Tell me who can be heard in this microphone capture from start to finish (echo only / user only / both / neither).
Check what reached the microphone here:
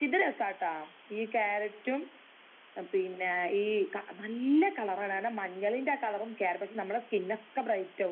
echo only